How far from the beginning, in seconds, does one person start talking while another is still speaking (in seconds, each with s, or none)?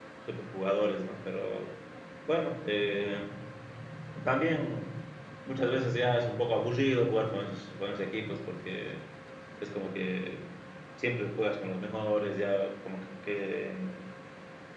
none